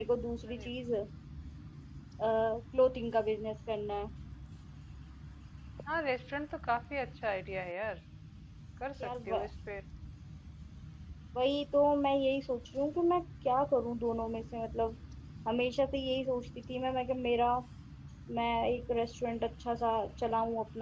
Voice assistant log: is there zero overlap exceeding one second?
Yes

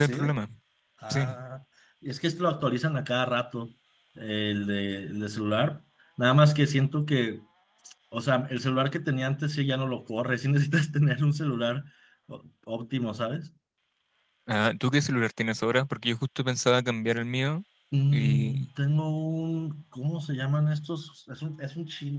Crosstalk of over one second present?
No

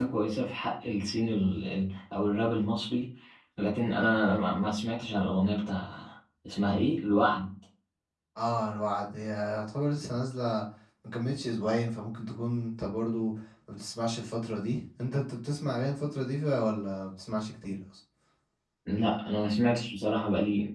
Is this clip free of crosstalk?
Yes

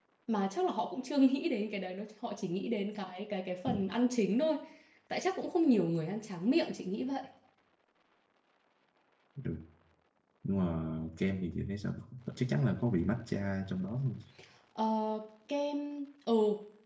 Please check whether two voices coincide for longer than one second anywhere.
No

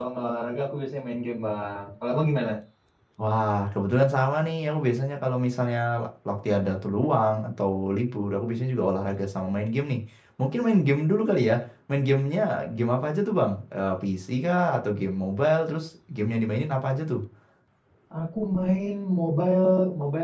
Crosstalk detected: No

